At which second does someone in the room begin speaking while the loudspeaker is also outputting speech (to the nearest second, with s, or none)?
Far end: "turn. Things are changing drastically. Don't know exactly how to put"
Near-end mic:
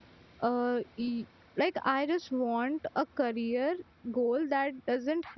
0 s